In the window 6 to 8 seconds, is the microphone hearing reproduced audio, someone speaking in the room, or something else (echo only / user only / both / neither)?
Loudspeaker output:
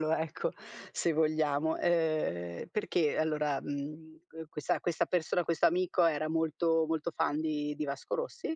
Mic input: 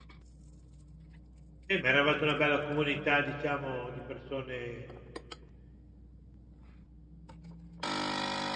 neither